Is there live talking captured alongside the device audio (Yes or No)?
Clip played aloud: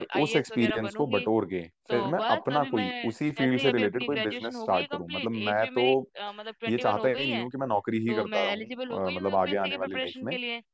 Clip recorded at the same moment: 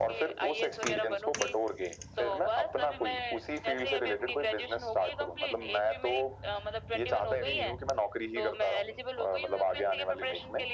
No